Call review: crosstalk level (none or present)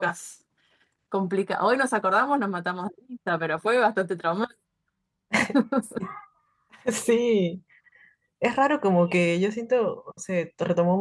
none